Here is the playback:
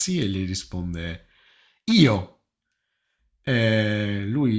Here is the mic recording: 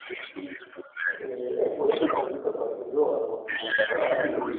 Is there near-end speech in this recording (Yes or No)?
Yes